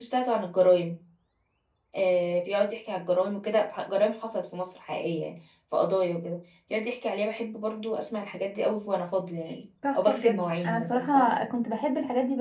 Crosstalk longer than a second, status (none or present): present